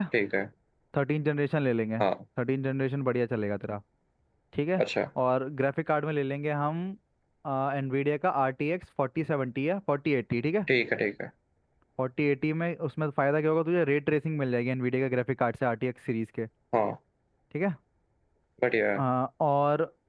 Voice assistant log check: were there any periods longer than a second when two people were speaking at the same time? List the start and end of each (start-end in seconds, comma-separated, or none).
none